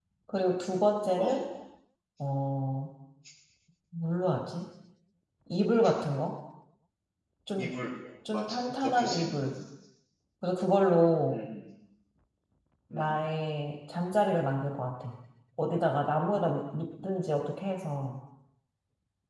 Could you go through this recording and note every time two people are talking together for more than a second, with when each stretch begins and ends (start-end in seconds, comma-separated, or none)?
8.3-9.5